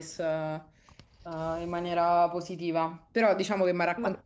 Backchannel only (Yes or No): Yes